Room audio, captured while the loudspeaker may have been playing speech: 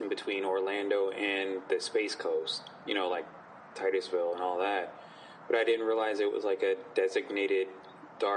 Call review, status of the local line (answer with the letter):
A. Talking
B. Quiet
B